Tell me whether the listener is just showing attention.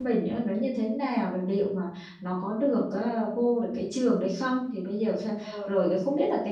Yes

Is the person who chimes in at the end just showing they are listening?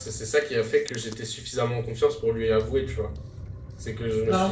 Yes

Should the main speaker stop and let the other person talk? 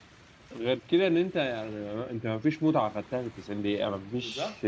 No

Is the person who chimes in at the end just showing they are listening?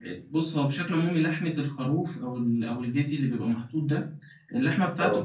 Yes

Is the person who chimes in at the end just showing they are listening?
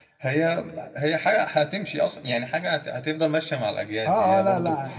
No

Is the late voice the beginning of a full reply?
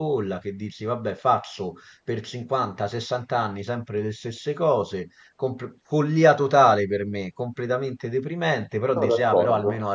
No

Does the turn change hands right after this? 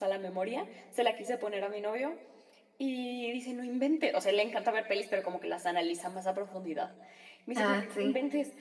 No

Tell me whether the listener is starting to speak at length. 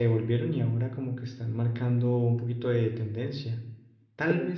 No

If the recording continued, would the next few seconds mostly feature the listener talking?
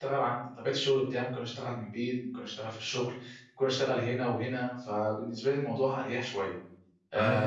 Yes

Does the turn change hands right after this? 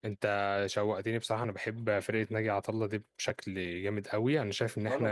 No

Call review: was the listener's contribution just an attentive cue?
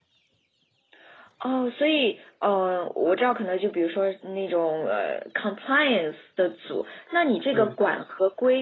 Yes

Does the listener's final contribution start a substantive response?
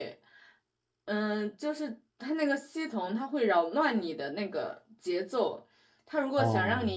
No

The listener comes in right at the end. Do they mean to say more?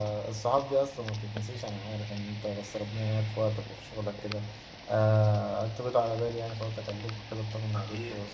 Yes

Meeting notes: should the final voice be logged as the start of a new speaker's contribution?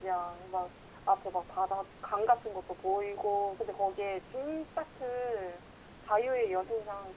No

